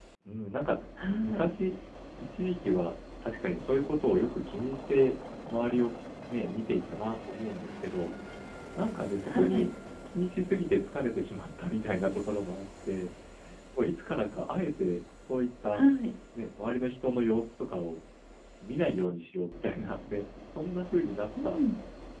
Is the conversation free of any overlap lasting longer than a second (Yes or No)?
Yes